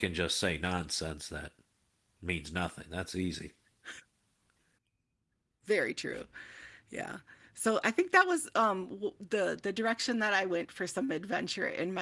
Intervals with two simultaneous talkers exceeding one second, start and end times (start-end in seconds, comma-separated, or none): none